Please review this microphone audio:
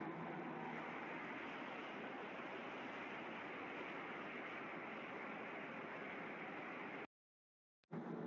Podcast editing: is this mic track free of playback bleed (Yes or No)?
Yes